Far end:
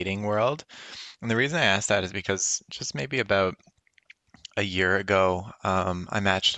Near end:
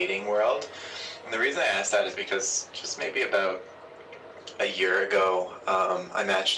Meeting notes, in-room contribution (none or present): none